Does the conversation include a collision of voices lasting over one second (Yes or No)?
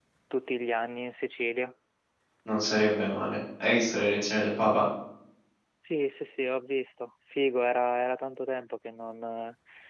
No